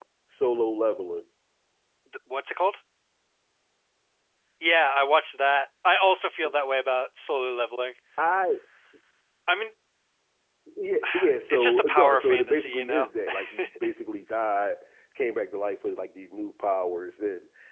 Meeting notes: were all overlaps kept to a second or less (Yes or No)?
No